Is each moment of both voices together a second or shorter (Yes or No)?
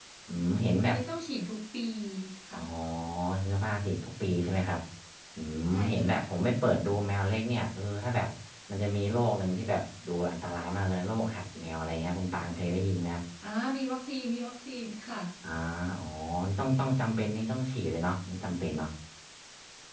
Yes